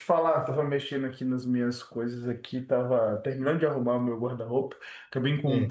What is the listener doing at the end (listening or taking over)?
listening